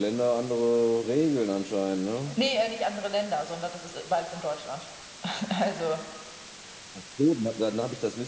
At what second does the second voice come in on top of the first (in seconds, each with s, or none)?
none